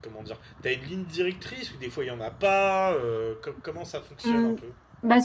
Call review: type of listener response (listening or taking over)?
taking over